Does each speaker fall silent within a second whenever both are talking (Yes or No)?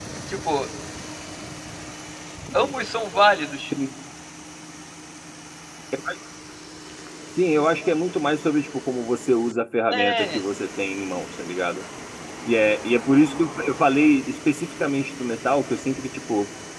Yes